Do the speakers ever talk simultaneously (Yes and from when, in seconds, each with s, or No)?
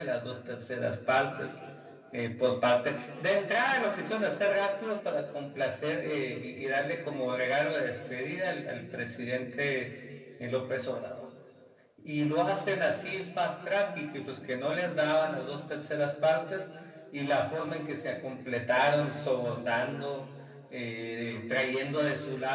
No